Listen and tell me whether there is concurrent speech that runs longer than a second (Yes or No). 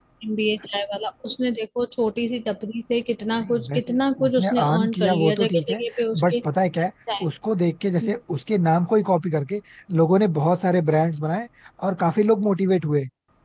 Yes